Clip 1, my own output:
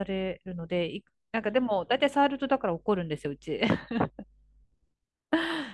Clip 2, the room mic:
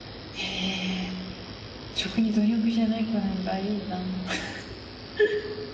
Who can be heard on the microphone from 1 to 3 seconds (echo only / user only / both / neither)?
user only